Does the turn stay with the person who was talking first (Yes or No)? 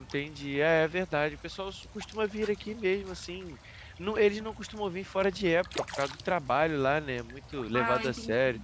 Yes